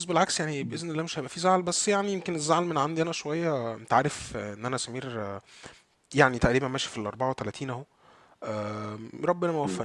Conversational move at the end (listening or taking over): listening